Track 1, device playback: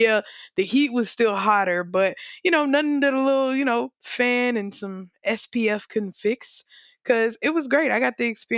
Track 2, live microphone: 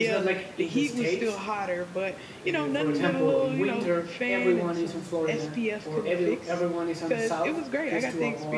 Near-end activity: present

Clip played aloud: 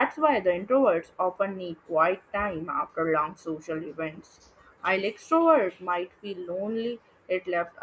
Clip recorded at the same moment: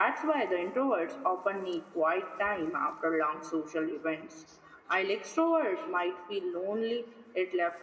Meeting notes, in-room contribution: none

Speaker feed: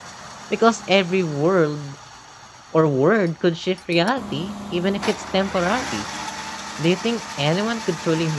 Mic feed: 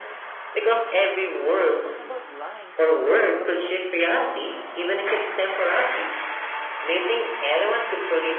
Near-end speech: present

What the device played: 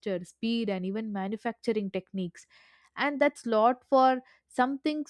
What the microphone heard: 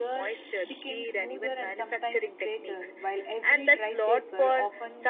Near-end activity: present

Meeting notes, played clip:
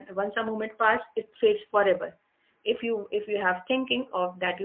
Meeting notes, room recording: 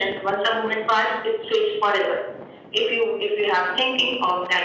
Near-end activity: none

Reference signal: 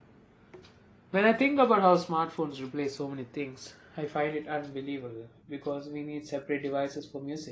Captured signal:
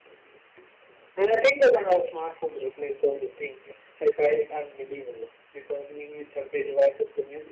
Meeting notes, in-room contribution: none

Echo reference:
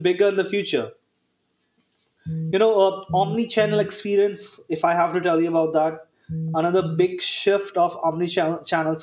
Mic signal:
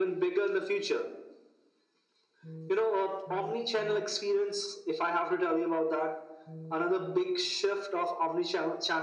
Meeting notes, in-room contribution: none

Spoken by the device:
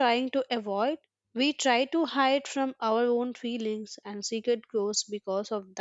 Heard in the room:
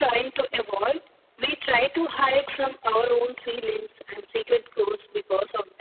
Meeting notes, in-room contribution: none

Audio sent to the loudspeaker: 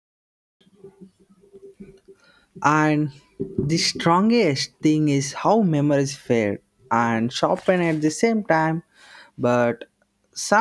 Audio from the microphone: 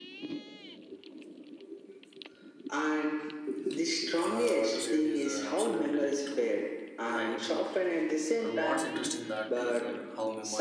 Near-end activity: present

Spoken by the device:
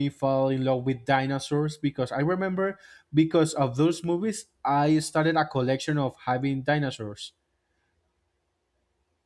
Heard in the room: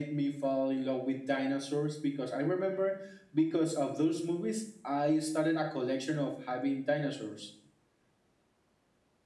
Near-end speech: none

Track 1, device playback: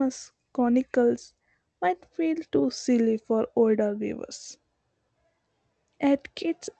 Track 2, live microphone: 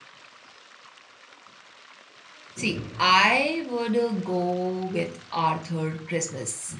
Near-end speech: present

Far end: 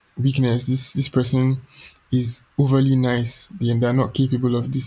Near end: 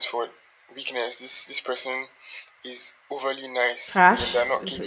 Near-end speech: present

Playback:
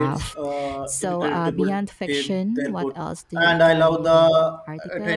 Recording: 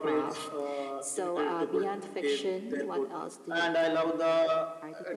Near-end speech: none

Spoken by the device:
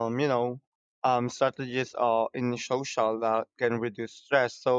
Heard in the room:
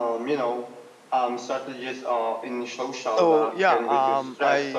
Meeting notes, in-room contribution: present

